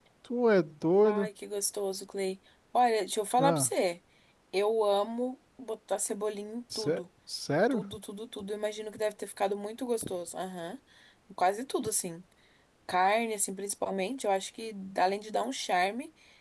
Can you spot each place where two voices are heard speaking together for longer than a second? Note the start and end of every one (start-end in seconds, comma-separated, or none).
none